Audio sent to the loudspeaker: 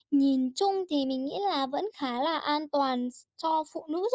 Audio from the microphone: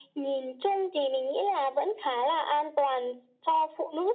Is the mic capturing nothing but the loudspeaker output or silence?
Yes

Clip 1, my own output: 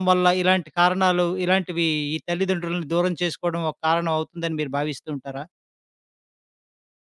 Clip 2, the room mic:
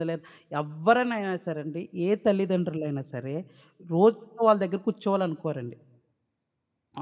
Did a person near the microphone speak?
Yes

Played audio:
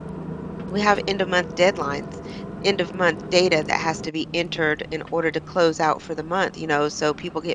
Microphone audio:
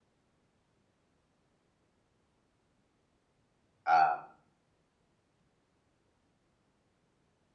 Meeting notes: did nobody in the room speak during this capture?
No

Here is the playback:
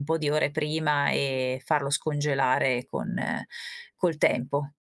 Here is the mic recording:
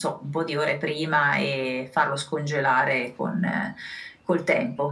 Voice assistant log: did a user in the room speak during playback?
No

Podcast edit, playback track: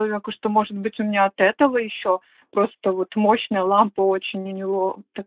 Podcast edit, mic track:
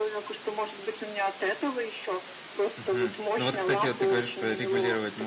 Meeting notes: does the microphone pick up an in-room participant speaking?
Yes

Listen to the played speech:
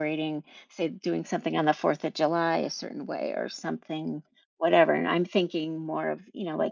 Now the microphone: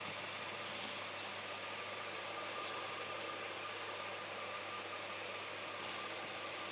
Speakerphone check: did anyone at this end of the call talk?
No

